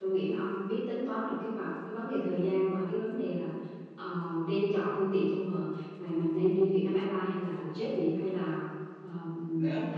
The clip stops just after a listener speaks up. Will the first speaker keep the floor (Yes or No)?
No